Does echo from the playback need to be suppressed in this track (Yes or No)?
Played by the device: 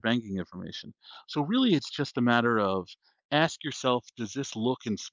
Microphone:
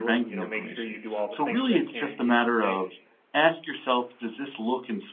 Yes